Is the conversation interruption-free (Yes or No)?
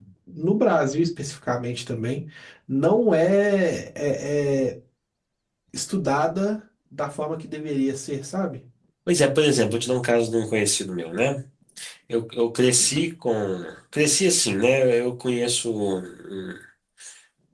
Yes